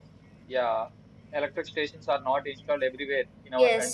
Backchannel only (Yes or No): Yes